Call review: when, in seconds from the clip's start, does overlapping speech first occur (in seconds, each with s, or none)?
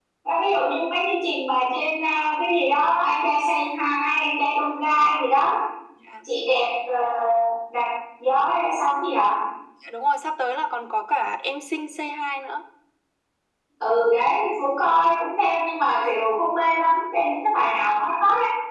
none